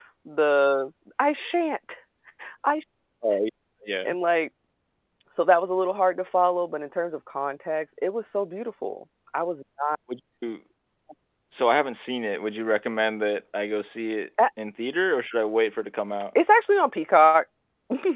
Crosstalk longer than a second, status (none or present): none